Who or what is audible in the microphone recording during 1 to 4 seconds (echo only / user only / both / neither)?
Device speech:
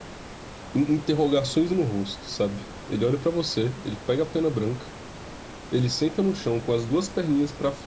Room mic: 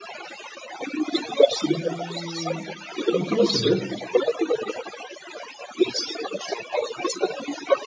both